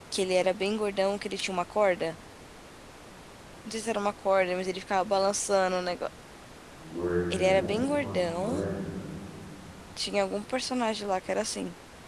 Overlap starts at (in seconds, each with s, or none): 7.3 s